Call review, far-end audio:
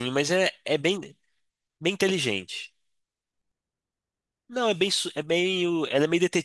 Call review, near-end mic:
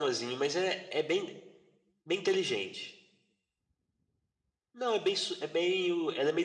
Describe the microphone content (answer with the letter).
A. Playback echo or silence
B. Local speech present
A